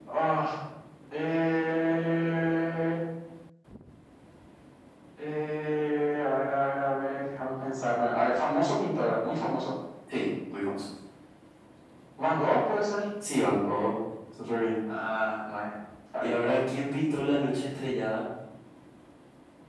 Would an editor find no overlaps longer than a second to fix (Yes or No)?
Yes